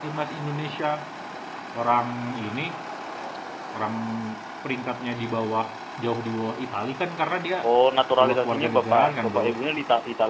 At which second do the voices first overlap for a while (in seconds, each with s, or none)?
8.2 s